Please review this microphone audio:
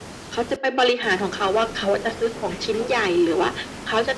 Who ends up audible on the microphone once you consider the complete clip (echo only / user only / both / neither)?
echo only